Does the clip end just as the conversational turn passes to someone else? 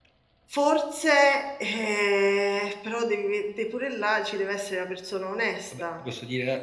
Yes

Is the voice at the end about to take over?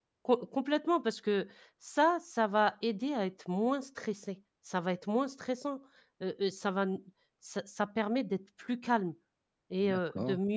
No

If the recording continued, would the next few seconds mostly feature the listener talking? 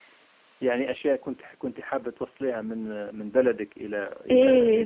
Yes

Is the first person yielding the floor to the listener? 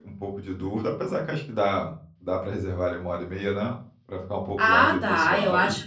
Yes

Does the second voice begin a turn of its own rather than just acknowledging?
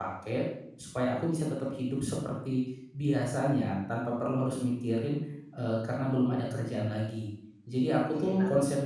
Yes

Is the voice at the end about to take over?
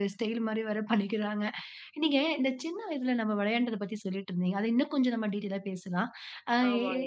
No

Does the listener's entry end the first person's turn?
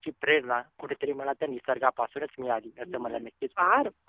Yes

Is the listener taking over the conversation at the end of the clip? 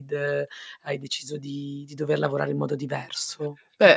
Yes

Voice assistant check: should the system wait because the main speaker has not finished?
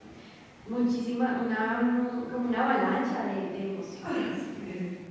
No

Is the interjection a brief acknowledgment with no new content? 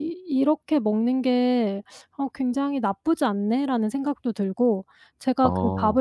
Yes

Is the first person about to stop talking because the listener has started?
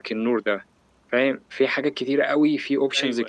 No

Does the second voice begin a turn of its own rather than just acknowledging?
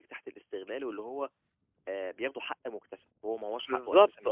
Yes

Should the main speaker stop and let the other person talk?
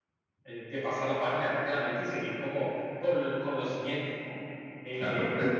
Yes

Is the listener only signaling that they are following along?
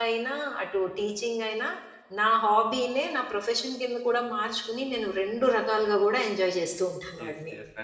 No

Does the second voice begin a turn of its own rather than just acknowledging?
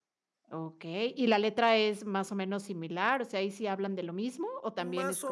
Yes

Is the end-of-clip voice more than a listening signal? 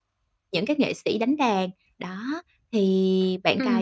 Yes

